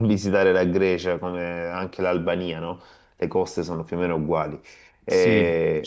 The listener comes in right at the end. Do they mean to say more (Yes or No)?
Yes